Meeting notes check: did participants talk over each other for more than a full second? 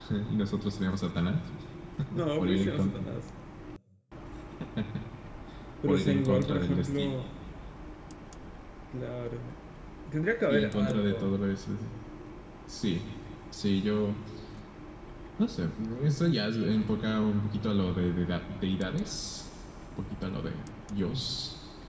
Yes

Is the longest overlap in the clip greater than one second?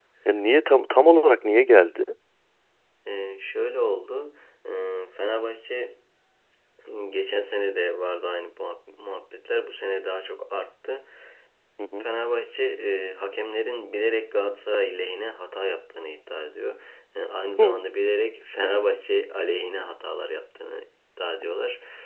No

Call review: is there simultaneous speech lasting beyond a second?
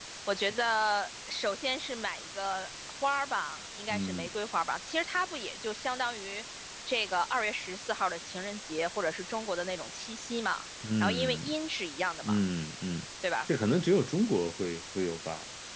No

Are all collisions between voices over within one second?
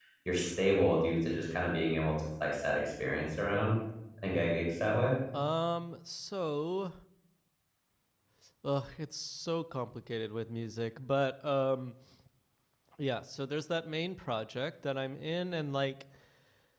Yes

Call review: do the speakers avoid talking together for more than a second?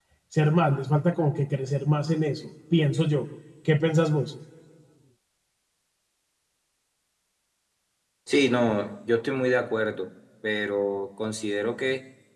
Yes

